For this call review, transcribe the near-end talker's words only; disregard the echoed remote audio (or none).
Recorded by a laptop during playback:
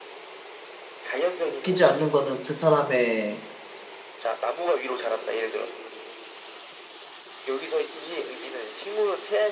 바뀌지 않는 거는 그 사람의